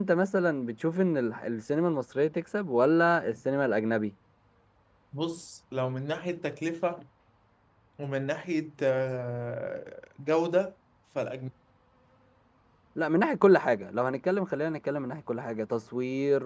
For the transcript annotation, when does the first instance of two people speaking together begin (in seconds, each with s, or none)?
none